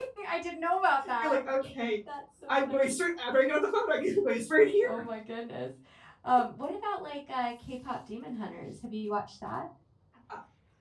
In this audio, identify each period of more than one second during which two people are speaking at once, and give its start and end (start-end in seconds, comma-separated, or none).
none